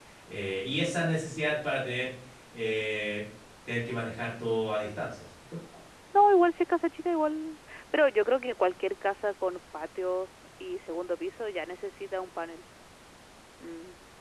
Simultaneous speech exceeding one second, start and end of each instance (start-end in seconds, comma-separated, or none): none